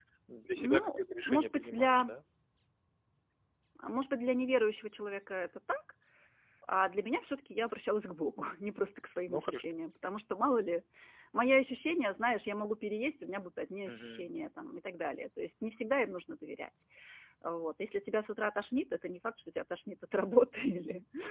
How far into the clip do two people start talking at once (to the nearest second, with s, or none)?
1 s